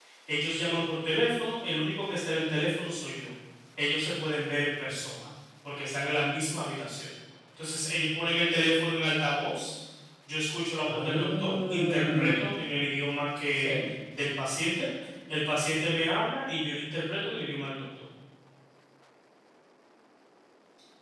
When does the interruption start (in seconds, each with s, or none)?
10.8 s